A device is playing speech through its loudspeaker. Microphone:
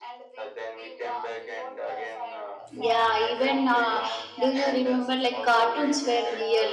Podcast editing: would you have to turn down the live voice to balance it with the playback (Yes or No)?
Yes